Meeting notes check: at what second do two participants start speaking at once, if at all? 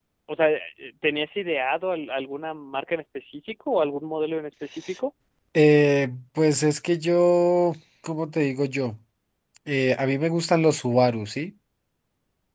none

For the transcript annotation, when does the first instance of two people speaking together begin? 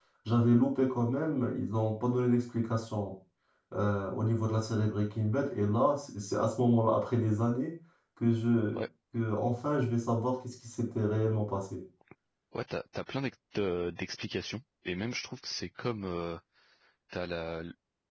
none

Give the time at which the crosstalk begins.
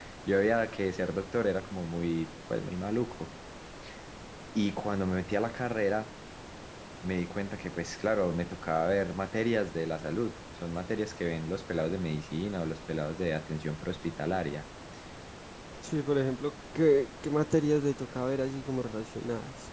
none

